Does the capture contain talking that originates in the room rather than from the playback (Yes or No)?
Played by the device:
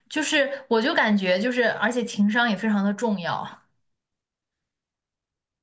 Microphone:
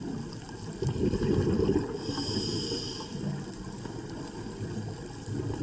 No